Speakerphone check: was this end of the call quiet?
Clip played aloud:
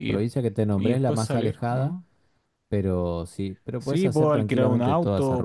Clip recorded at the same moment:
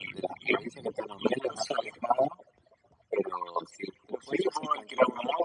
Yes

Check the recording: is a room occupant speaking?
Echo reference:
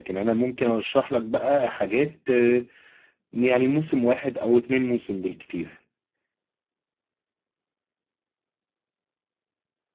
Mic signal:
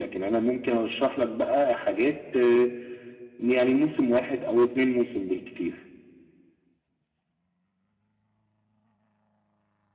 No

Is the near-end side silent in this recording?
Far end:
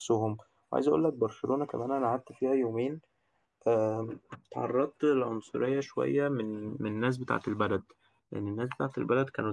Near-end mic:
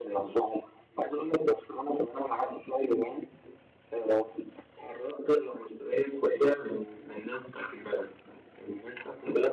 Yes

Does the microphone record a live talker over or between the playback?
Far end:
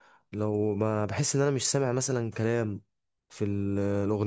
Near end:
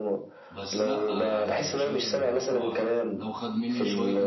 Yes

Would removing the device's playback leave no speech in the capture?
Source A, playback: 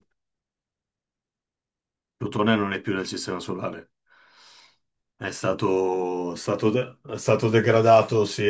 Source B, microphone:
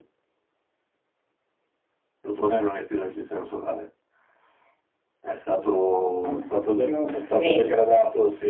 No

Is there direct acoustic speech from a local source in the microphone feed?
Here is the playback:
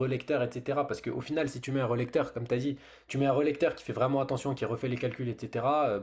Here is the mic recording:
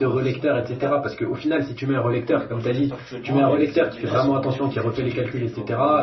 Yes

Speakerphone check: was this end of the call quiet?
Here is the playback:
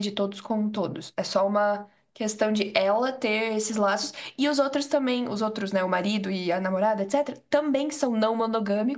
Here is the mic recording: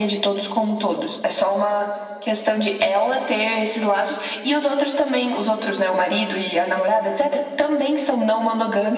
Yes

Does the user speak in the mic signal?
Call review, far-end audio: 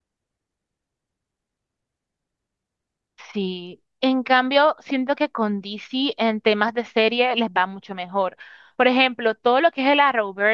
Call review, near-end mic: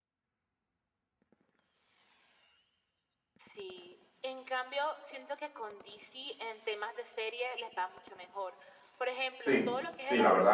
Yes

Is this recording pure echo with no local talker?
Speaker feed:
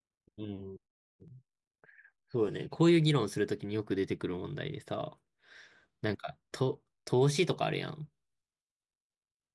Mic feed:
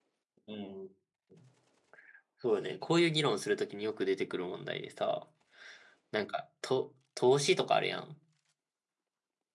Yes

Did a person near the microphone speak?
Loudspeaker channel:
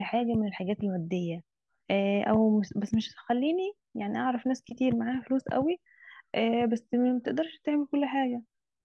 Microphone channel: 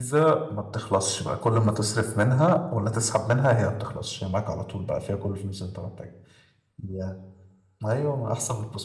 Yes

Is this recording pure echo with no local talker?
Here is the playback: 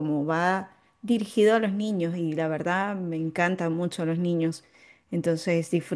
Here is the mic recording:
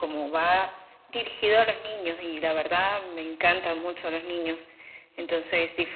Yes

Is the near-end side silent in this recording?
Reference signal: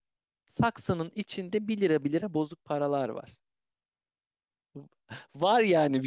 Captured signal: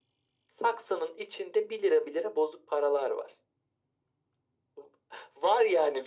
Yes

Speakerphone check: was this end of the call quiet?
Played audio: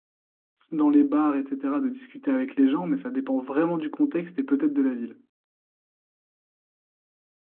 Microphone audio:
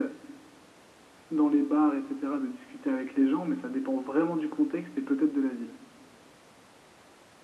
Yes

